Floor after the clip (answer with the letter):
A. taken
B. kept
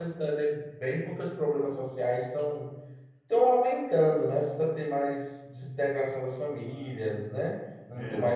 B